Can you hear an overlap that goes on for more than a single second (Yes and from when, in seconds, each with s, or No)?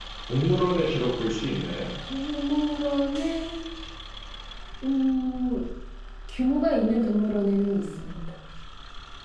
No